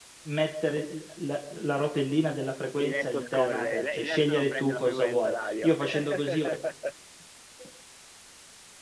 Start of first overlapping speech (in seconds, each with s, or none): 2.8 s